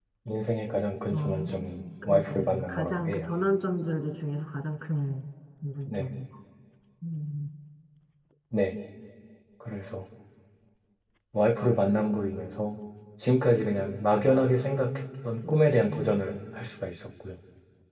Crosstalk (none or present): present